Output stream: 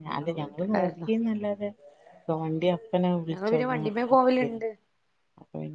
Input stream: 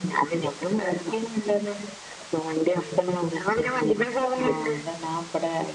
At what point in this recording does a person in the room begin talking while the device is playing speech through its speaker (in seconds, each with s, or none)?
4.4 s